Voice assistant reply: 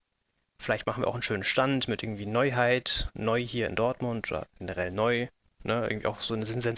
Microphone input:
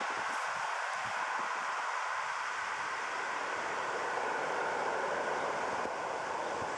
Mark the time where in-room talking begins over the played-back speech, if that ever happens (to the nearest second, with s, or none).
none